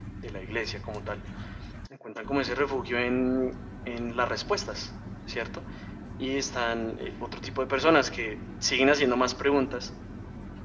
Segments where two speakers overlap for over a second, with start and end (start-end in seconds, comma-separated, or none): none